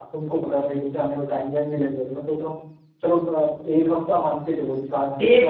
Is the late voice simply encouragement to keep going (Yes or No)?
No